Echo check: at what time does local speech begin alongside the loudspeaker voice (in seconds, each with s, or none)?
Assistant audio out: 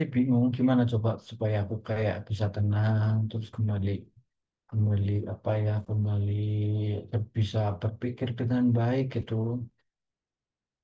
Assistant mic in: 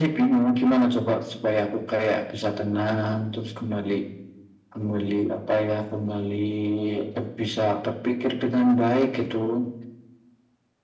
none